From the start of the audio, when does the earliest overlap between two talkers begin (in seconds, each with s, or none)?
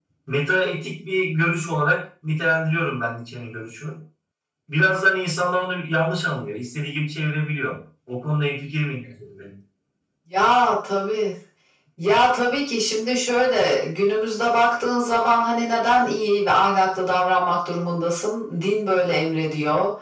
none